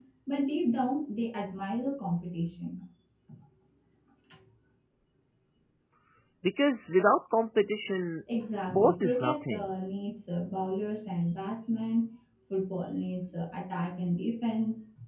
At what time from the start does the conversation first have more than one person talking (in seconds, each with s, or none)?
8.3 s